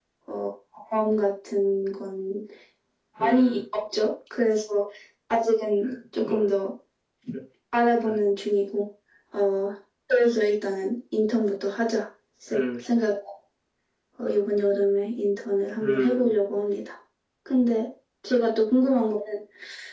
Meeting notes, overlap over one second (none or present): none